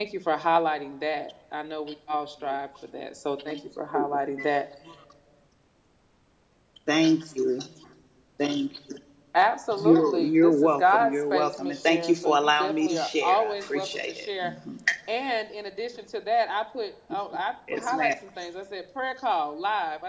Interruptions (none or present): present